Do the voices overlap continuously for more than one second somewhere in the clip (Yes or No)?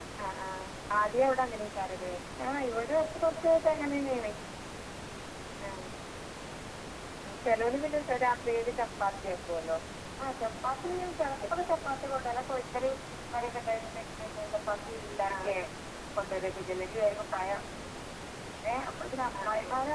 No